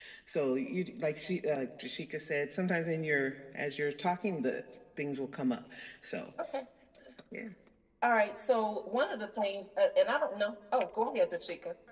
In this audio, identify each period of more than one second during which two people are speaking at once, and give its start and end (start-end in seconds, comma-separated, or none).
none